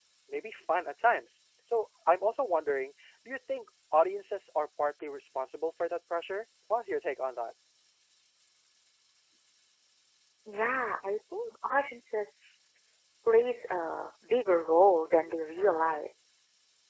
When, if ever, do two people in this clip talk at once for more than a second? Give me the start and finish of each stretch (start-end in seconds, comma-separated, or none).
none